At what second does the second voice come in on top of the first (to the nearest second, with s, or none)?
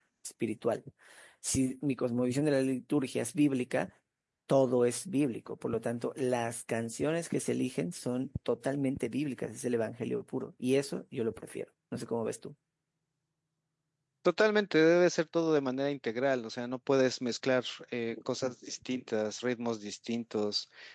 none